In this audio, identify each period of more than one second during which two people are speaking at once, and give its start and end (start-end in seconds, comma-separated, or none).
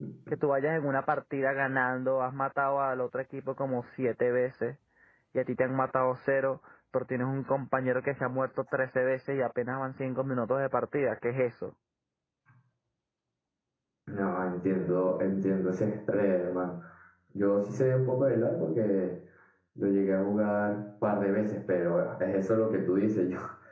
none